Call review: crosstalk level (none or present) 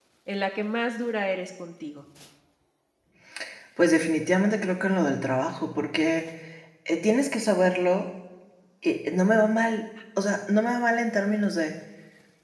none